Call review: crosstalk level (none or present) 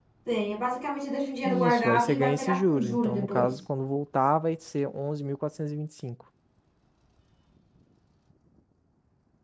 present